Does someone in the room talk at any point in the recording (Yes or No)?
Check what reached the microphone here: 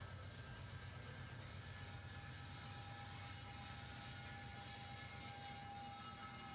No